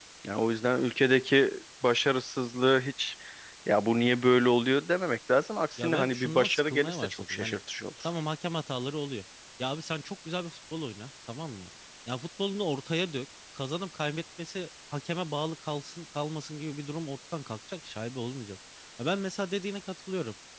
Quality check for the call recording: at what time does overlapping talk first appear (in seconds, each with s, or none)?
5.8 s